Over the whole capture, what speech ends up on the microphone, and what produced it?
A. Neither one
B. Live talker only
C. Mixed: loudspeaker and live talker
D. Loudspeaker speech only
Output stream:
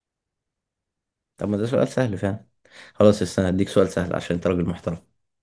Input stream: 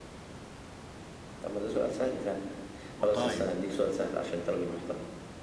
C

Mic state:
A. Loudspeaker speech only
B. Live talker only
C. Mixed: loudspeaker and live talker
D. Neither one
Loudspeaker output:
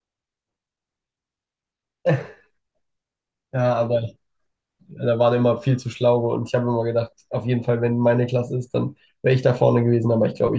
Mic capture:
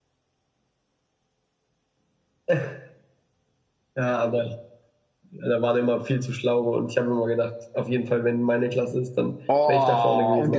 C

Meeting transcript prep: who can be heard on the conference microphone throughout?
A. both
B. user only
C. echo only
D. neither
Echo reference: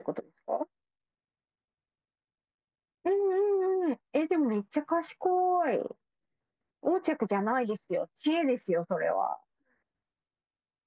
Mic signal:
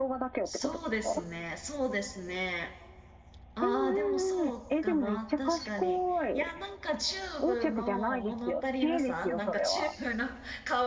A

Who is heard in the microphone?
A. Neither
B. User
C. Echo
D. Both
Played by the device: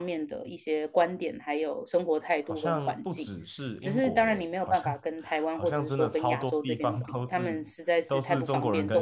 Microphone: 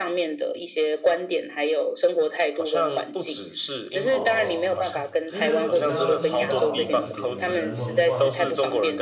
D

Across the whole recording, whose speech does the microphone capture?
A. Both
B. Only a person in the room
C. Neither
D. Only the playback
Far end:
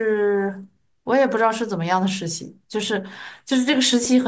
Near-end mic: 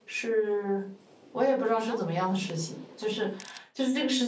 A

